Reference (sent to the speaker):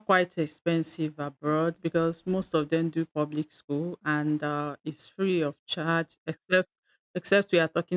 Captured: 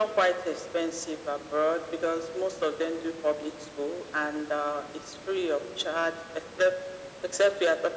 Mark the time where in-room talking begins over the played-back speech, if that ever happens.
none

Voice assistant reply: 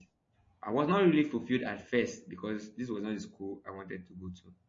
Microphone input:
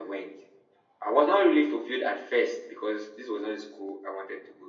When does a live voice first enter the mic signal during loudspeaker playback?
none

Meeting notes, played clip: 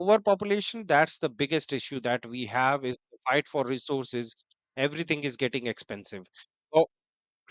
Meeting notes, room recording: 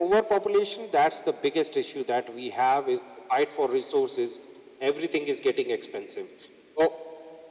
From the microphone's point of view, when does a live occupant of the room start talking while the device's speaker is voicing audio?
none

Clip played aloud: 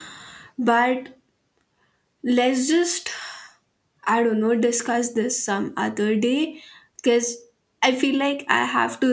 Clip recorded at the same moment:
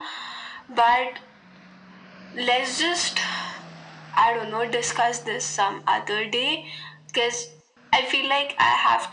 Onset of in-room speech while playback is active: none

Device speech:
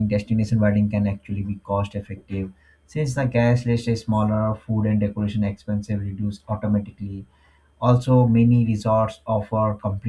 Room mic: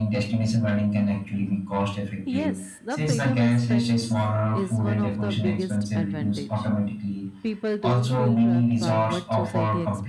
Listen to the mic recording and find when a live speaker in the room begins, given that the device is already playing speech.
2.2 s

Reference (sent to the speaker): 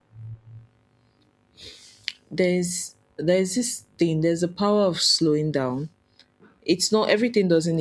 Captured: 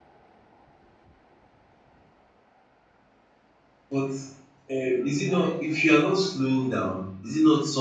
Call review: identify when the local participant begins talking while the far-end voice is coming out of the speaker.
3.9 s

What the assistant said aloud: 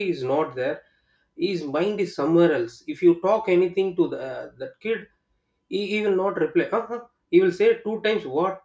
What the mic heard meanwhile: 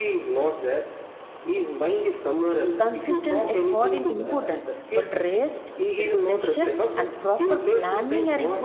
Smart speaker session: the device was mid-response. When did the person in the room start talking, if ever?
2.8 s

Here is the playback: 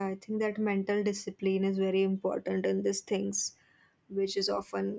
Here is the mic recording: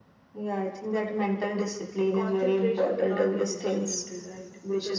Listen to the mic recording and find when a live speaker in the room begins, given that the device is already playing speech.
2.1 s

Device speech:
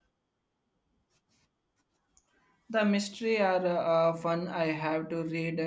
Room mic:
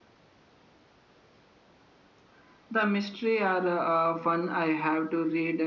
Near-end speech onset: none

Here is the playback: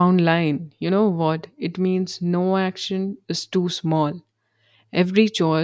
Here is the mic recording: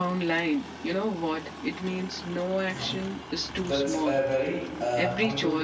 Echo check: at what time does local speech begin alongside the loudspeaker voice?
2.7 s

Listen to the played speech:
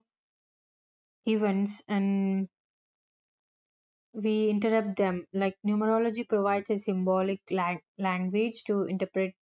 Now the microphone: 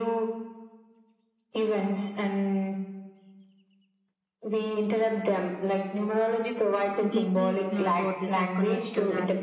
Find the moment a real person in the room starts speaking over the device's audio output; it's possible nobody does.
7.1 s

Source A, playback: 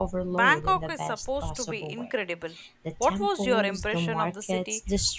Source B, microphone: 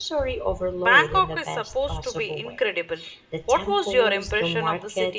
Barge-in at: none

